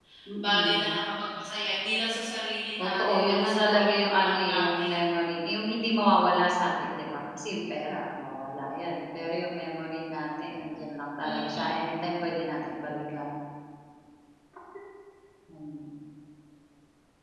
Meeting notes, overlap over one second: present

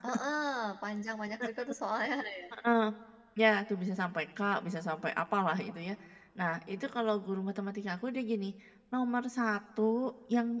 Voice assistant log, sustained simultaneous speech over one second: none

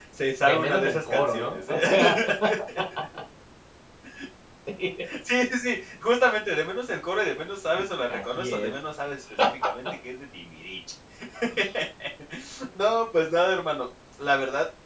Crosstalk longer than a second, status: present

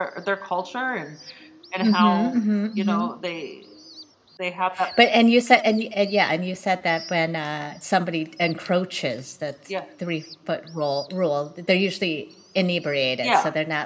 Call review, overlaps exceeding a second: none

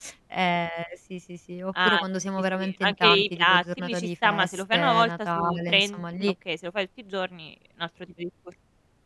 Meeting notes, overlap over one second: present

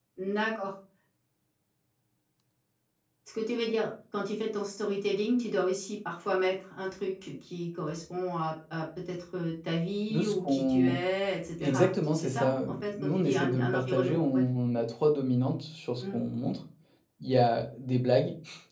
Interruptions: present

